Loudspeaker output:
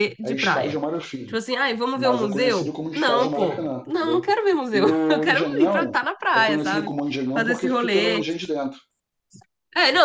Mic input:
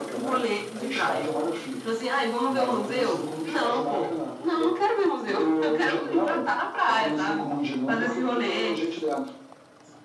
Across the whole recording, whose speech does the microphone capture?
echo only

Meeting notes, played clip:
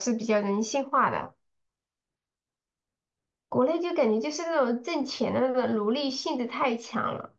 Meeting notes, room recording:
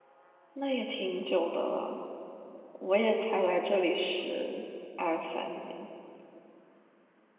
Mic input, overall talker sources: user only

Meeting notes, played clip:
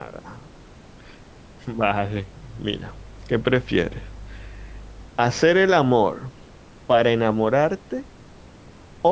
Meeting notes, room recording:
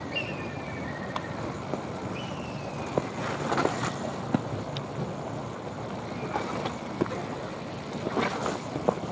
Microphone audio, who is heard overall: neither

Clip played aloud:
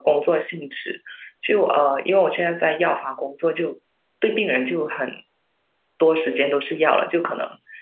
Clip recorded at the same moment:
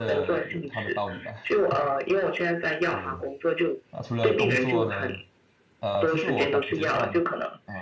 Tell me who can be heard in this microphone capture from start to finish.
both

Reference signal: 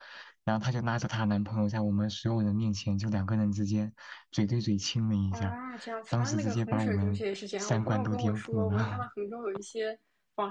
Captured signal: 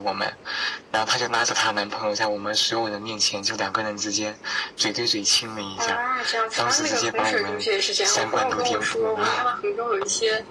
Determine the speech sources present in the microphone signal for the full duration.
echo only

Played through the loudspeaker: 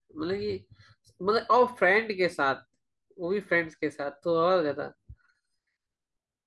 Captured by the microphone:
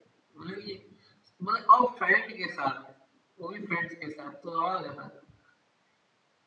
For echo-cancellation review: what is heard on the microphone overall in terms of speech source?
echo only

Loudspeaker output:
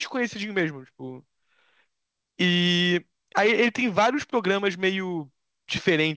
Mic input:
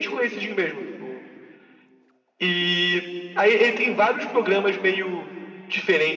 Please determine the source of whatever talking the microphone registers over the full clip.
echo only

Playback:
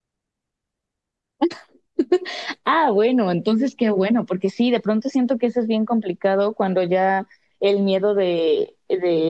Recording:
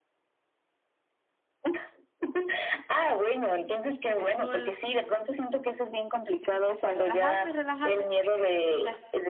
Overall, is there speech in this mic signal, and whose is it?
both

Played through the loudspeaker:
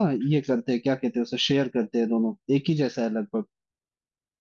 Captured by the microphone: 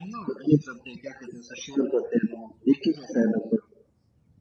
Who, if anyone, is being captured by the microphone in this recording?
echo only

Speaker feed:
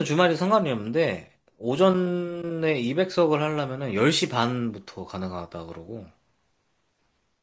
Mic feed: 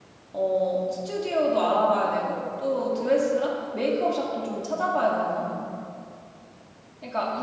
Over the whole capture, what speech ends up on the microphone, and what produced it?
user only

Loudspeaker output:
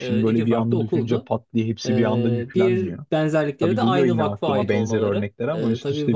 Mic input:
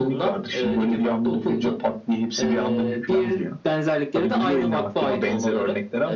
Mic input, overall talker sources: echo only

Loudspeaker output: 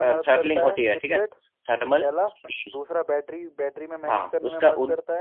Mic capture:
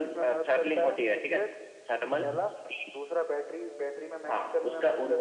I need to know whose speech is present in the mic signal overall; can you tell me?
both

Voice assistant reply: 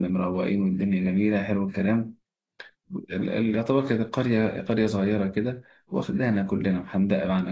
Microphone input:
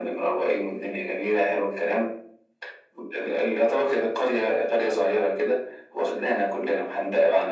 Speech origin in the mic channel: echo only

